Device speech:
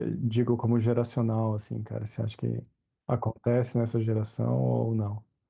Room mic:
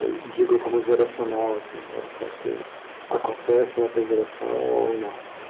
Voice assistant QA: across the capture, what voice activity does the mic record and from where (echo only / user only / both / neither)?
echo only